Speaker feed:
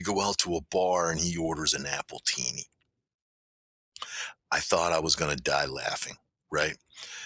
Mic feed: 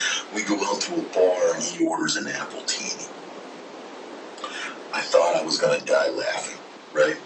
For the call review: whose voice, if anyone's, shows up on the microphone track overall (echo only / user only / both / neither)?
echo only